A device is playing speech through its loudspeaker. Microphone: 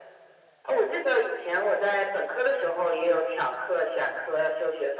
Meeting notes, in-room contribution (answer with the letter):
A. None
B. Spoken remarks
A